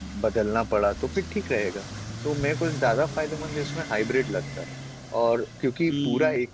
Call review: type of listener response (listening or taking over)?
listening